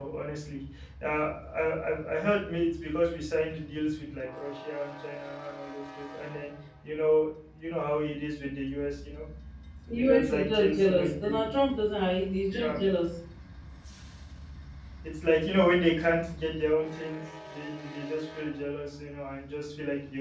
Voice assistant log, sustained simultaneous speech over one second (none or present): present